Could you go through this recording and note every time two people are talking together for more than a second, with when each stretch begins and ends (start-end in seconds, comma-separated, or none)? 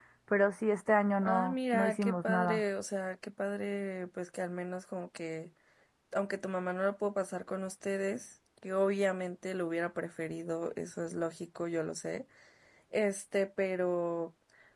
1.2-2.6